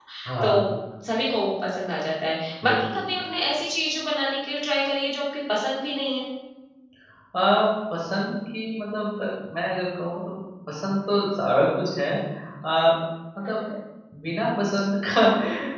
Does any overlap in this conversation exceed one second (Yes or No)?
No